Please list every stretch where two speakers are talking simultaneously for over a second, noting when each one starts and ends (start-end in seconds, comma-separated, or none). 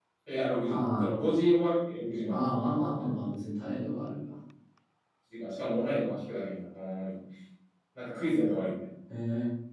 none